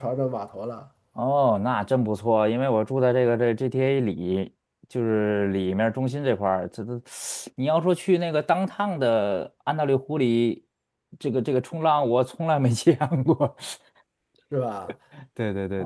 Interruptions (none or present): none